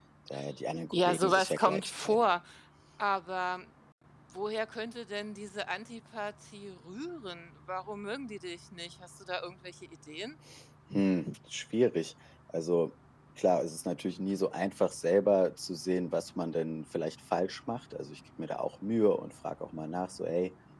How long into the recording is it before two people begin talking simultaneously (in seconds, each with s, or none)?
0.9 s